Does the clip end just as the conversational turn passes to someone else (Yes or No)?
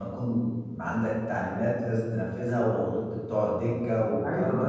Yes